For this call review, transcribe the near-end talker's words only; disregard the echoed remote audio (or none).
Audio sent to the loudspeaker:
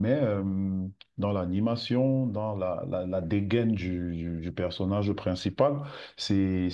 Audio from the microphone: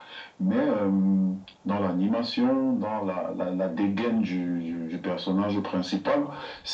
none